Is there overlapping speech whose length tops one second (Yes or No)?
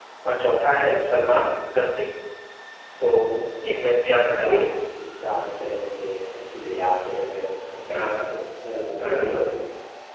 No